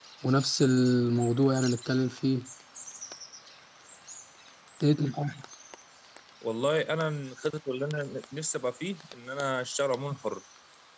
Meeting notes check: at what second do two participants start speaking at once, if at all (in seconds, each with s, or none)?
none